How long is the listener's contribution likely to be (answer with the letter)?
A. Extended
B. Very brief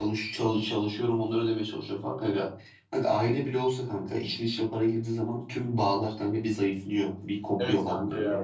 A